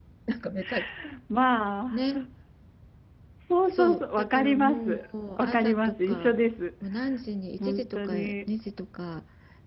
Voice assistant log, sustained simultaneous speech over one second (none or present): present